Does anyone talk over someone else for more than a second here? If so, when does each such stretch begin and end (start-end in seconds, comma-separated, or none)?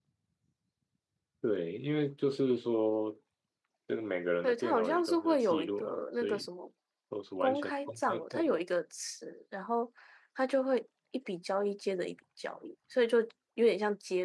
4.4-6.5, 7.4-8.6